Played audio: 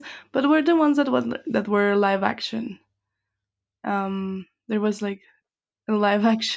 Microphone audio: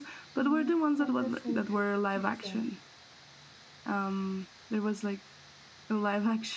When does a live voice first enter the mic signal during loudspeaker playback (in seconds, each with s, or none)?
0.4 s